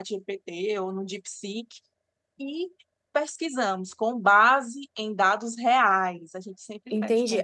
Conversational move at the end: taking over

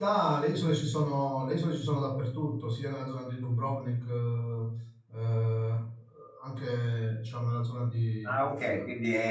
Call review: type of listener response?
taking over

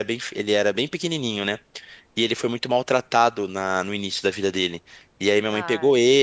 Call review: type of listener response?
listening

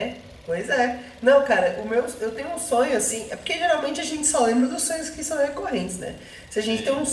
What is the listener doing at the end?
listening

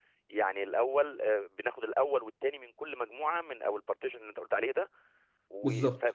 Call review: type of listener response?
listening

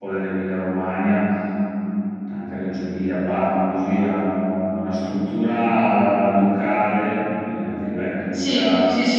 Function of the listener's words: taking over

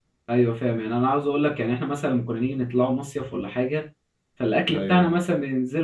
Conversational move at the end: listening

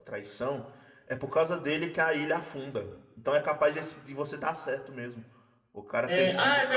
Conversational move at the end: taking over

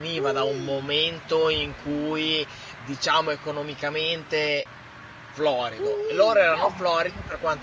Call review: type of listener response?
listening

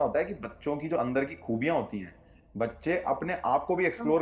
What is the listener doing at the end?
listening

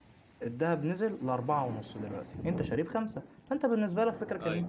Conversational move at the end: listening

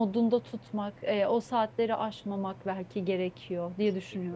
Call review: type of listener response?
taking over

